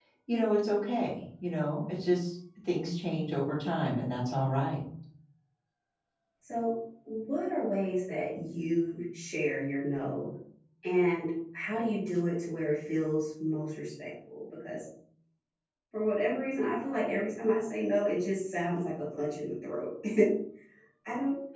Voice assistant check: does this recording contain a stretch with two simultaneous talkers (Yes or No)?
No